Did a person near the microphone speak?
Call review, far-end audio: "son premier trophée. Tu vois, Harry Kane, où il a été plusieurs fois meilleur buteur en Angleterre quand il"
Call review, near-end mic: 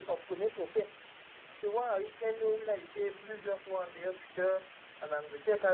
No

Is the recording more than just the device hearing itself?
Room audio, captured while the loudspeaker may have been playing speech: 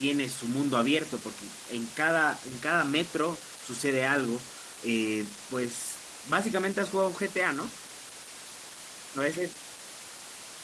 Yes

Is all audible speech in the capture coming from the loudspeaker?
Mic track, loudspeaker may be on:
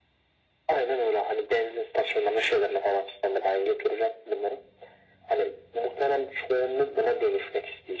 Yes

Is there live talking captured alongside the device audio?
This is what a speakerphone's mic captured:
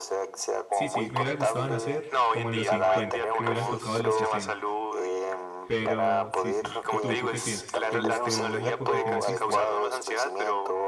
Yes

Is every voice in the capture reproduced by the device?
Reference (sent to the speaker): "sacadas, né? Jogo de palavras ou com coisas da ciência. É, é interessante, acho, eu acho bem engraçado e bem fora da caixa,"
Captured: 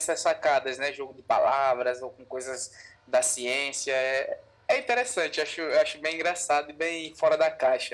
Yes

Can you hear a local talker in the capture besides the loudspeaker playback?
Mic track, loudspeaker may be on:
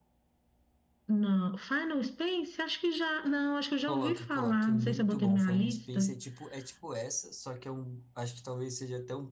Yes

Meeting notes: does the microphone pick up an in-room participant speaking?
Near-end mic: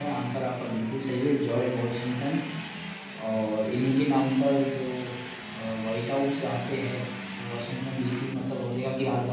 Yes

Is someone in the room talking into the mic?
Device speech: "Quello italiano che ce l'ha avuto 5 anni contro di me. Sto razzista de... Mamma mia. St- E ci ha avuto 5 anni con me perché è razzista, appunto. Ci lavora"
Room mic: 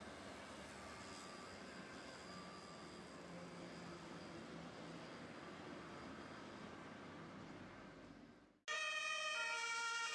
No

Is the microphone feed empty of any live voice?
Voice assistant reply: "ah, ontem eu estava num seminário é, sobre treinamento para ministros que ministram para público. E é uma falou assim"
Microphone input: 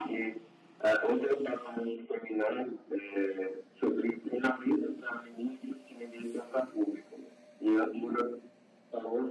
Yes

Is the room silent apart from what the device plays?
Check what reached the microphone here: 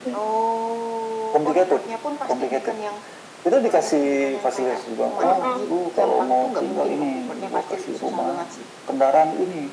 No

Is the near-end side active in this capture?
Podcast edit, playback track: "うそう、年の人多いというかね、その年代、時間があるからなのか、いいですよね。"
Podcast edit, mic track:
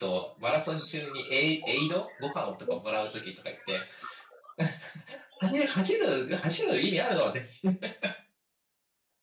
Yes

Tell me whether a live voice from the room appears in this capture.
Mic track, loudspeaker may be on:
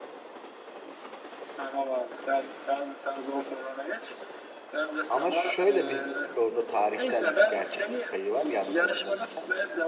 Yes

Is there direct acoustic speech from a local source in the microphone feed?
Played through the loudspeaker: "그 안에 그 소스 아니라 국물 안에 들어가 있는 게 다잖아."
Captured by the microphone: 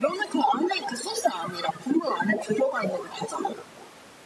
No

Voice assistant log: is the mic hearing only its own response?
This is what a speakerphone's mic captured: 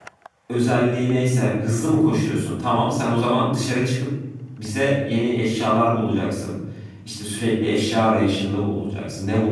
No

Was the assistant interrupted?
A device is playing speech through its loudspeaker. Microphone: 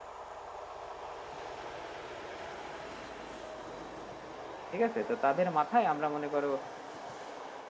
Yes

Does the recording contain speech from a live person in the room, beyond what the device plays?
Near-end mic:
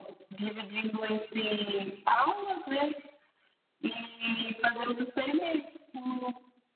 No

